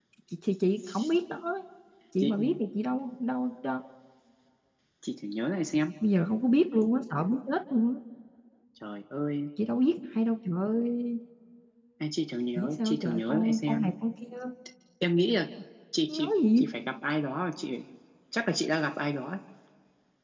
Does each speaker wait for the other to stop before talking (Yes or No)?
No